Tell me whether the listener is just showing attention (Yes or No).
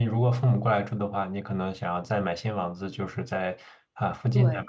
Yes